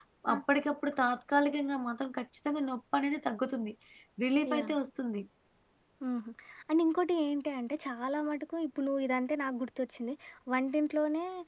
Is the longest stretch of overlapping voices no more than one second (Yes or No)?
Yes